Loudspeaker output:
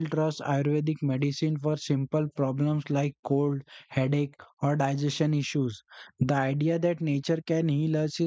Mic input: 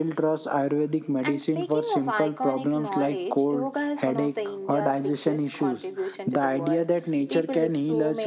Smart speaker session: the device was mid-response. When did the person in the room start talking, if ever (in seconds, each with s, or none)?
1.2 s